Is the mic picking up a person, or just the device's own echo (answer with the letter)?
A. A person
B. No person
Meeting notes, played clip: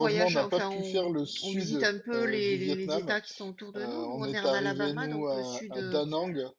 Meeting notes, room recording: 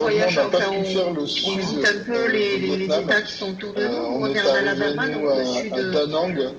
A